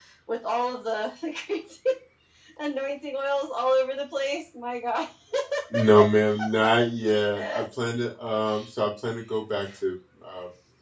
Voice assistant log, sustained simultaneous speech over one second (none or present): none